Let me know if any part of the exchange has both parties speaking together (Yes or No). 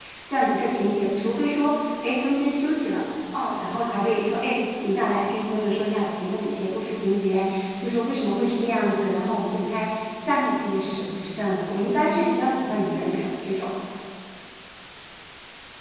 No